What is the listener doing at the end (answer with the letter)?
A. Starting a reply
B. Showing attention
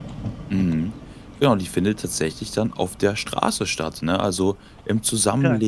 B